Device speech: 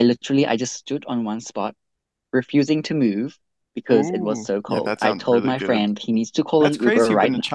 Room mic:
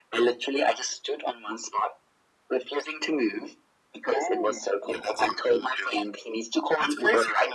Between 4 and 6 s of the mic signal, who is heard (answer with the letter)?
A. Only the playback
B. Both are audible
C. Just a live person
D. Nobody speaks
A